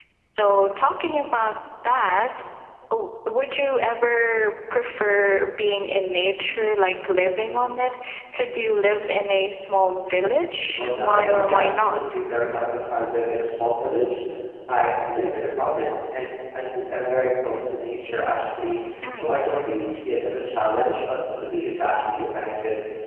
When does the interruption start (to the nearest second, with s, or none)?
11 s